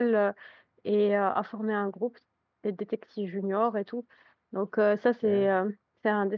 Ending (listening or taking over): listening